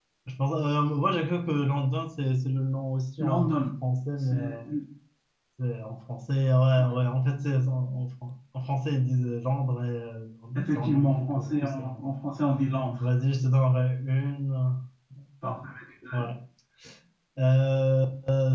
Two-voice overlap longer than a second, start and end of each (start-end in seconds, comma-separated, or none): 10.7-12.1